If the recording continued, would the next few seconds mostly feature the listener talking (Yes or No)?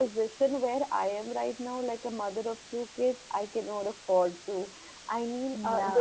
No